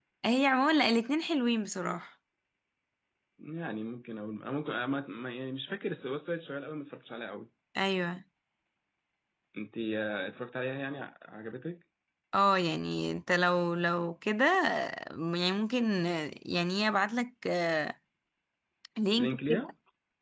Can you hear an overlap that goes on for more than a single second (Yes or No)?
No